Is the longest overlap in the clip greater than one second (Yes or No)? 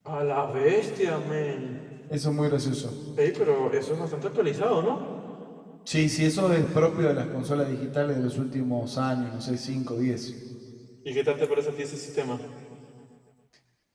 No